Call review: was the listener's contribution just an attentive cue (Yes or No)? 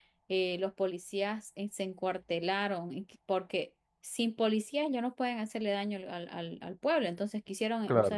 Yes